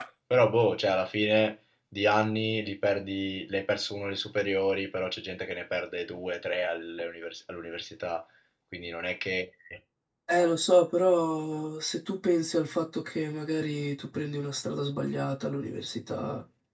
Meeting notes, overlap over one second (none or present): none